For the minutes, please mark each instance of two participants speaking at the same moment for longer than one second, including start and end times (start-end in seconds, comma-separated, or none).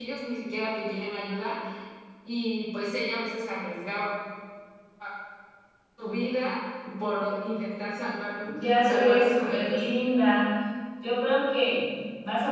8.4-9.8